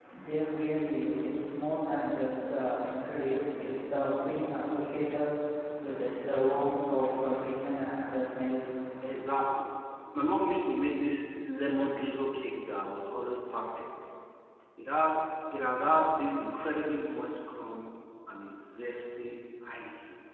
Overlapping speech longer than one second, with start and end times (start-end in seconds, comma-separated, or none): none